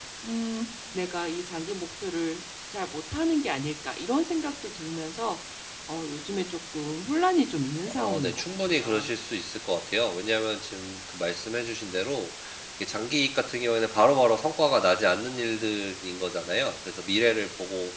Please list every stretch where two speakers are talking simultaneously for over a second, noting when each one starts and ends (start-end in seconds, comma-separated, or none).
7.9-9.1